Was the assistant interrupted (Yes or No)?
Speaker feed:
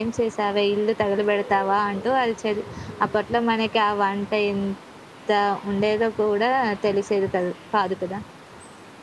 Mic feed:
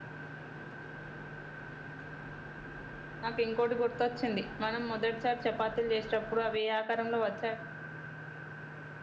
Yes